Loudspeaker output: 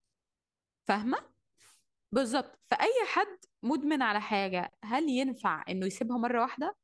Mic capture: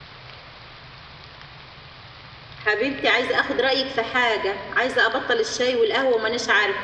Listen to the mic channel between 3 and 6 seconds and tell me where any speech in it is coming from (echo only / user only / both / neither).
user only